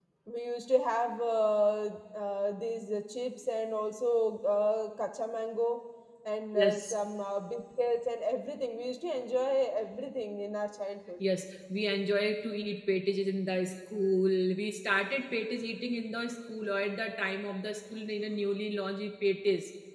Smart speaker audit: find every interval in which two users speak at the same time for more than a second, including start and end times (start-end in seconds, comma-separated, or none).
none